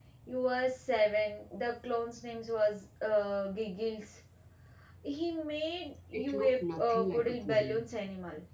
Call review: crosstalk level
present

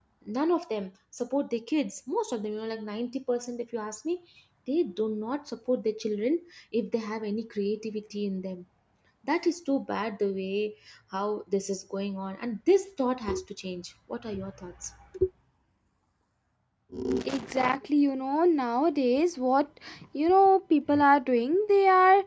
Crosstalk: none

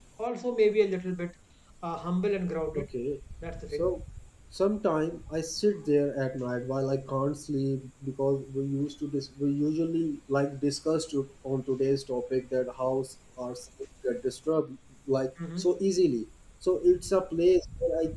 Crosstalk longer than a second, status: none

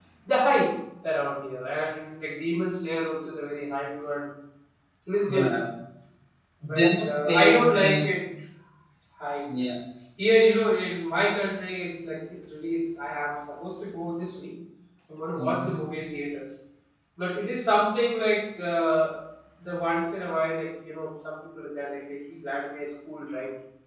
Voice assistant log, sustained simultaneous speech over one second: present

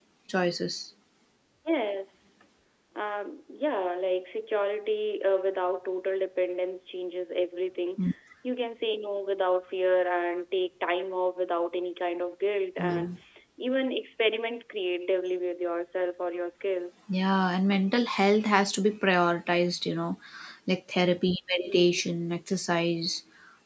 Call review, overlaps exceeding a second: none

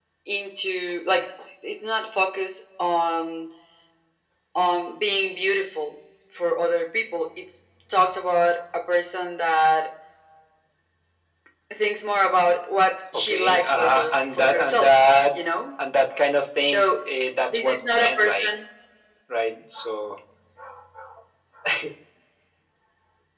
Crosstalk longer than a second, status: present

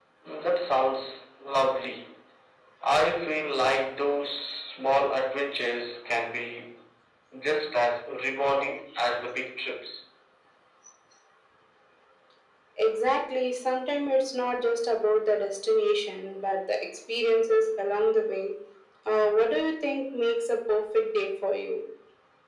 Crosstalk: none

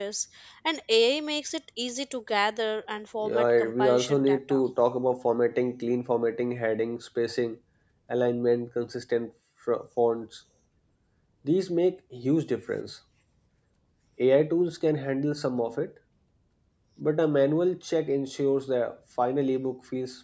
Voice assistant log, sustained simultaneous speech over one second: present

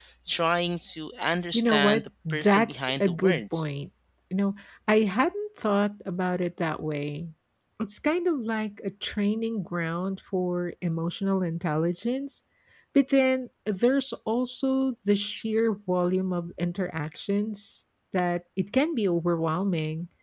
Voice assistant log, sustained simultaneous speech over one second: present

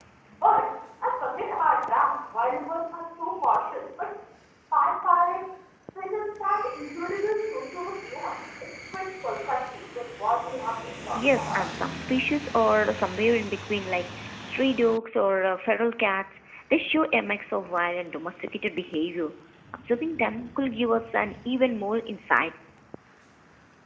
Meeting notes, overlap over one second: none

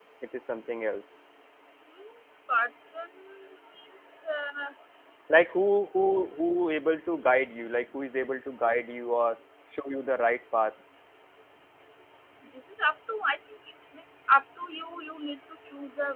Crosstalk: none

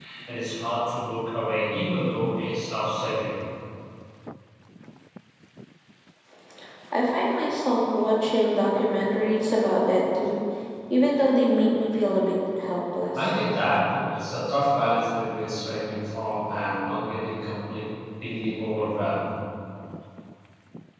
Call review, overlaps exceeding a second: none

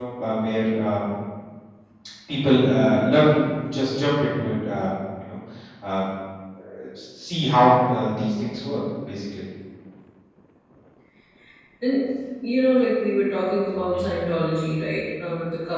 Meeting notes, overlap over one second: none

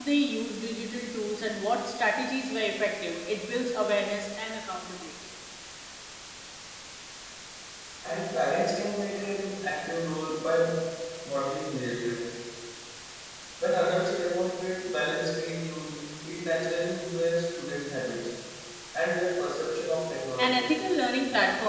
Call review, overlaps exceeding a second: none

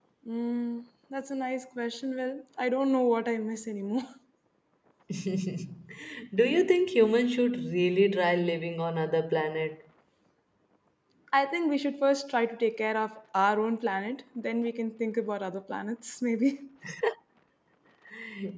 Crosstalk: none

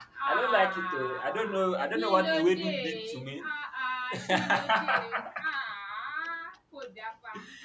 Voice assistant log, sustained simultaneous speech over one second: present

